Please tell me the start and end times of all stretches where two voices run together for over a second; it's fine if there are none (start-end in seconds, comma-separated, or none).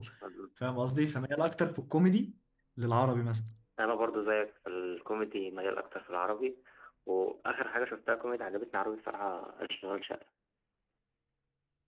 none